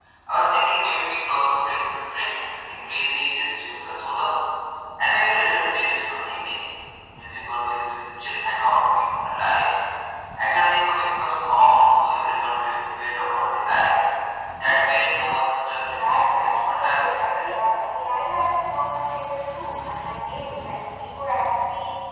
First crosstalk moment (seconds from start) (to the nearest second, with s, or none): 16 s